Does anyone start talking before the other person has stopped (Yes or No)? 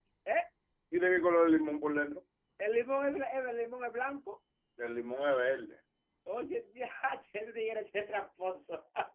No